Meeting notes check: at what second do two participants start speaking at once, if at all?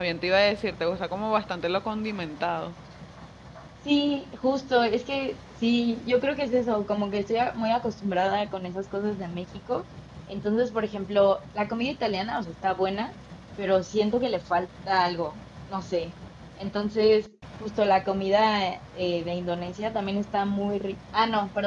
none

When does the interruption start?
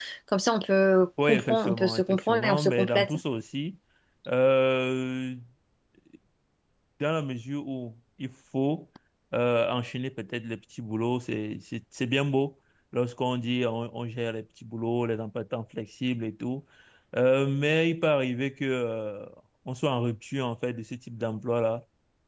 1 s

